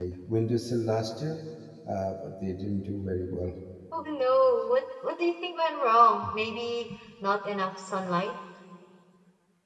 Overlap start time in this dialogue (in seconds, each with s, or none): none